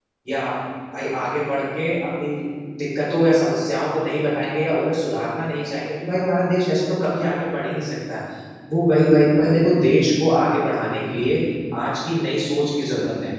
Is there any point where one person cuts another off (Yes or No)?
No